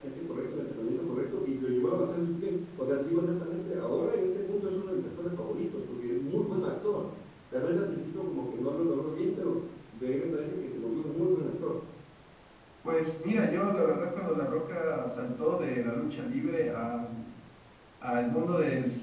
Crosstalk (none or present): none